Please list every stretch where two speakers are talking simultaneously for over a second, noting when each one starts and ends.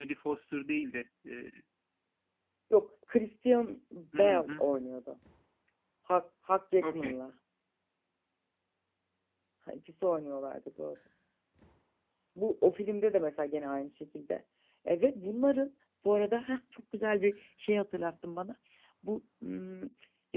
none

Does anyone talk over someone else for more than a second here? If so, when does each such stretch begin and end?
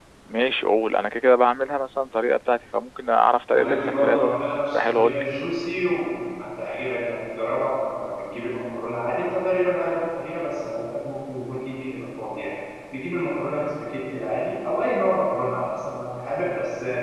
3.5-5.2

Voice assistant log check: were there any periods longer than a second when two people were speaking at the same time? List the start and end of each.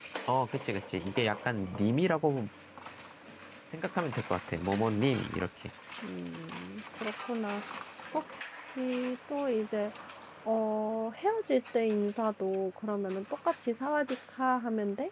none

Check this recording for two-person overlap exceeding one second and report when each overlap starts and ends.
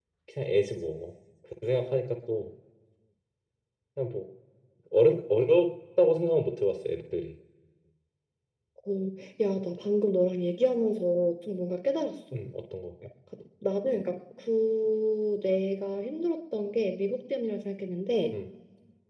none

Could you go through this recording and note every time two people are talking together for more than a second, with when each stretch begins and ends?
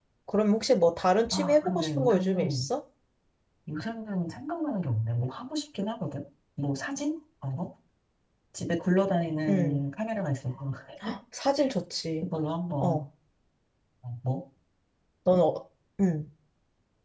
1.3-2.7

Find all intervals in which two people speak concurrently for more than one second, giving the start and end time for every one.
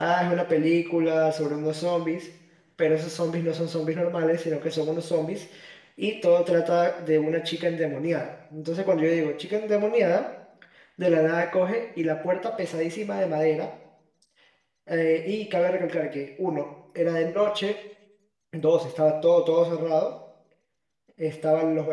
none

